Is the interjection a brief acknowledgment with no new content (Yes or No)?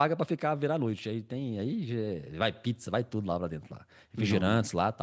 Yes